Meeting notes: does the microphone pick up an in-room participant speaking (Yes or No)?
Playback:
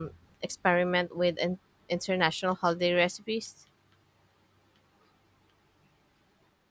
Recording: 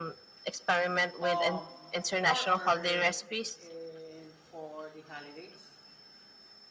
Yes